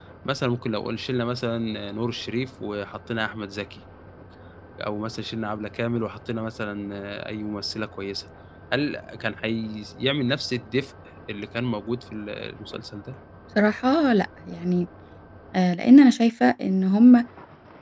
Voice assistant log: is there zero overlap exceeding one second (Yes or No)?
Yes